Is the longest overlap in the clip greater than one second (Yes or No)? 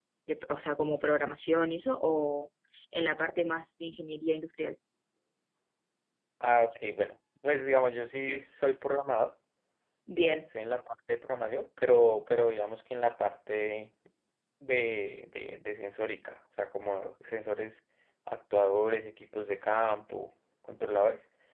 No